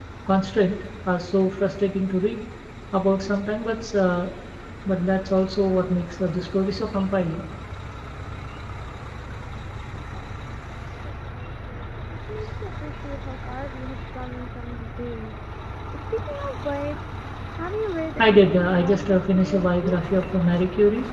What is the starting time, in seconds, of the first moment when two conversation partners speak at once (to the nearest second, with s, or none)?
18 s